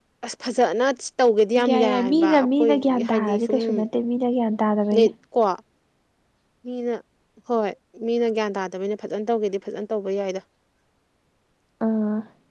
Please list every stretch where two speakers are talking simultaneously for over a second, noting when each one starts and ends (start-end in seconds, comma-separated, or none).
1.7-3.6